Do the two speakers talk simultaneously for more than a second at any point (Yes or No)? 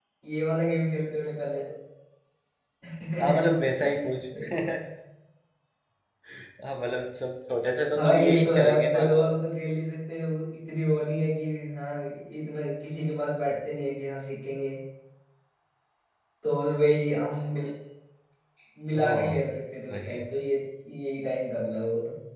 Yes